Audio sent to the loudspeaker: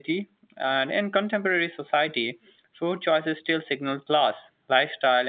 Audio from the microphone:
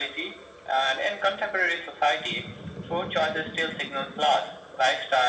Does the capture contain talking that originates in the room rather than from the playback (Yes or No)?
No